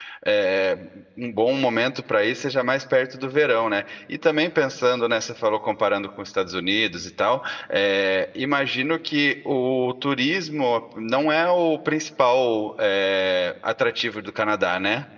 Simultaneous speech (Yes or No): No